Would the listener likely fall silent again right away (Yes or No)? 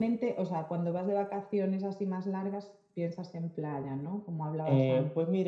No